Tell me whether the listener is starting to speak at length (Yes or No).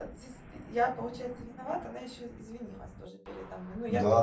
Yes